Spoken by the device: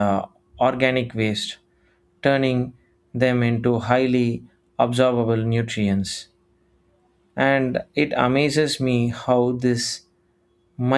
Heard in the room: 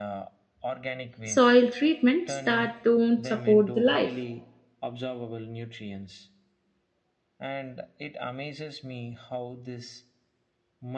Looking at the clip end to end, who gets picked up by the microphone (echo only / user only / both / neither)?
both